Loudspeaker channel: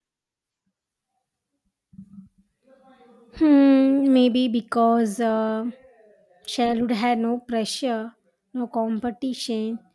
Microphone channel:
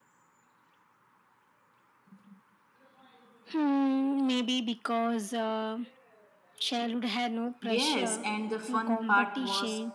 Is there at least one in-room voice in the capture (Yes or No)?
Yes